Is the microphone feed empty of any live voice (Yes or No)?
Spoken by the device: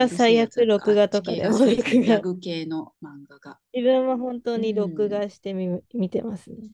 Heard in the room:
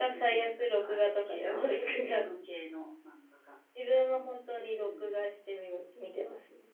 Yes